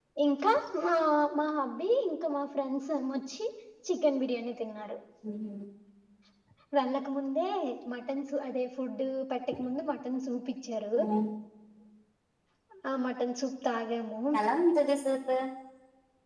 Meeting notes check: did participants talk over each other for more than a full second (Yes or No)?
No